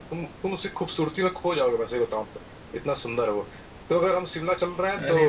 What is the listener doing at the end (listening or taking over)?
listening